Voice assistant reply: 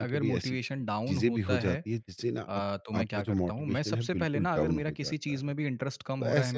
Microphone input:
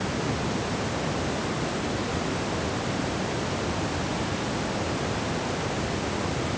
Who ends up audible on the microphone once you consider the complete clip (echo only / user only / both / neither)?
neither